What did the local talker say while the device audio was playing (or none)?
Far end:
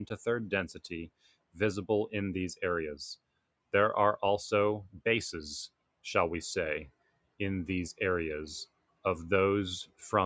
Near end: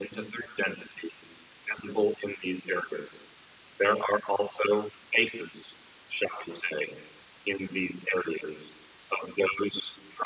none